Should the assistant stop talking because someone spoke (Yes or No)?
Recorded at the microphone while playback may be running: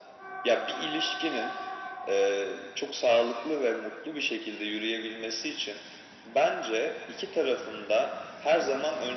No